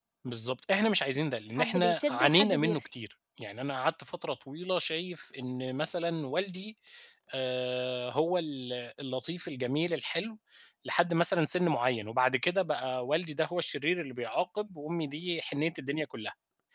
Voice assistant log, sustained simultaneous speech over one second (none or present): present